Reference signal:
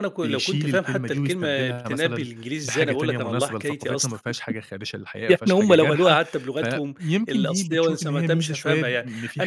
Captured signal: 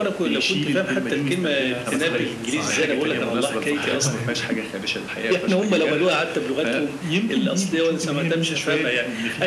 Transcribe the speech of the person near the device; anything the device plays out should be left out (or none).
صحيح، صحيح، صحيح أيوه.